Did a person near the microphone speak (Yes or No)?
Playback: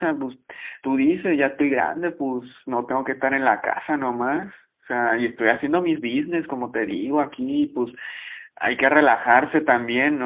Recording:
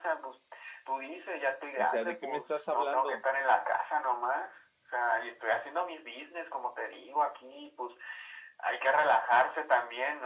Yes